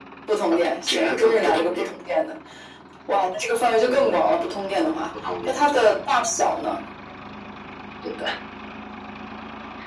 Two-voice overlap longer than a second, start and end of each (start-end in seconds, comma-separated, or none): 0.6-1.9